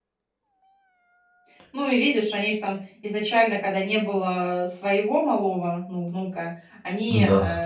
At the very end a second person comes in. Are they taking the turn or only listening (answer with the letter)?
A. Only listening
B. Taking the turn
A